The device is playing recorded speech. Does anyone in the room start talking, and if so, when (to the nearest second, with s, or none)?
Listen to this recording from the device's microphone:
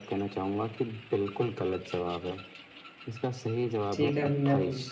4 s